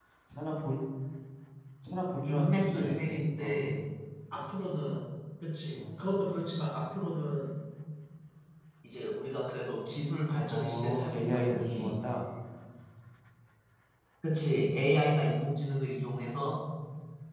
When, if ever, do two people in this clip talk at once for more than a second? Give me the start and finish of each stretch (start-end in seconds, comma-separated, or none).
2.2-3.6, 10.5-11.9